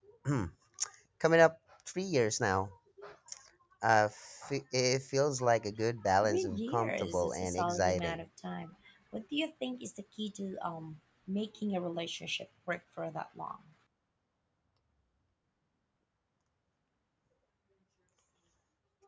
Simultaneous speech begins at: 6.2 s

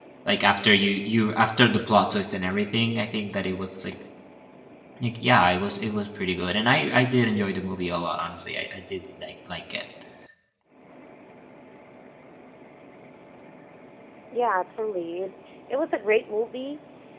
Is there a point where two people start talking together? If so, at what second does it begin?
none

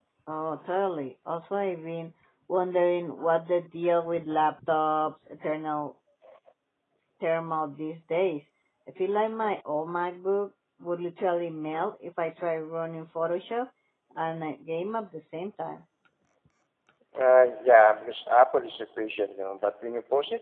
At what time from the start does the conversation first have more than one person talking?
none

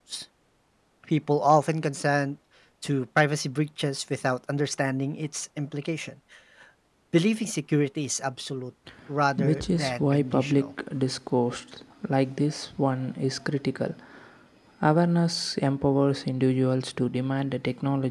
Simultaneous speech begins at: 9.4 s

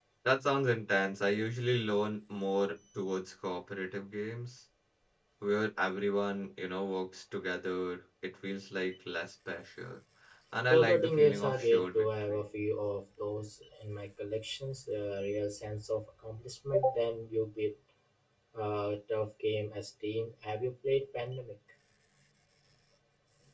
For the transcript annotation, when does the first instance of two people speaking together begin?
10.7 s

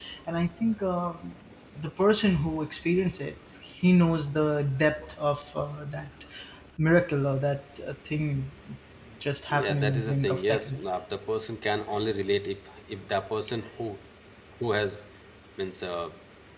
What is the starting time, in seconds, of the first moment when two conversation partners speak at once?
9.5 s

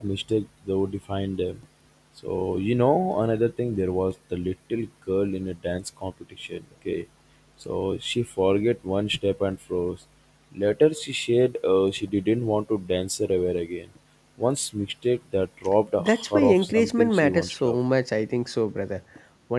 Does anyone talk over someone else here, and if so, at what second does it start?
16.0 s

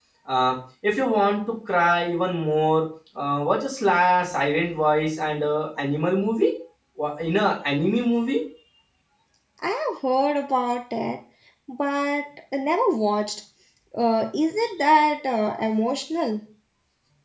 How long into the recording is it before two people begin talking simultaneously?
none

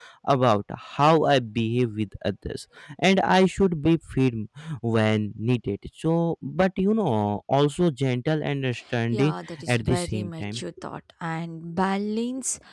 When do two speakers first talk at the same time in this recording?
9.1 s

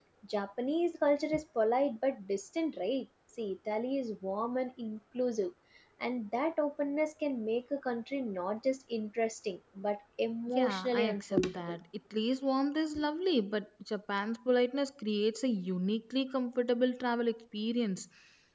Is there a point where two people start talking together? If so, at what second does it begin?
10.5 s

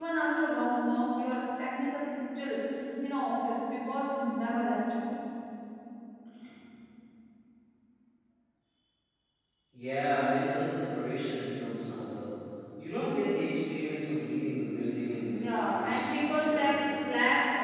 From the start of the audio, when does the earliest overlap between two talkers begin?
15.3 s

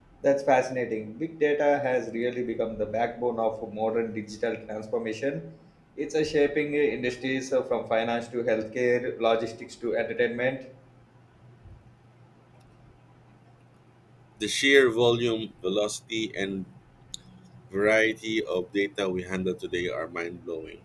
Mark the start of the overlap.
none

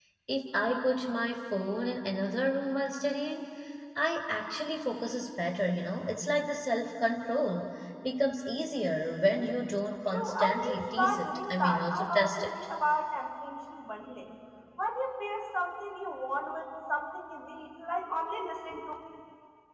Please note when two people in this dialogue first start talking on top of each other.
10.1 s

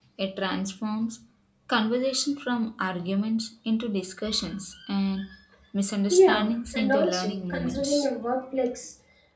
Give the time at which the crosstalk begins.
6.1 s

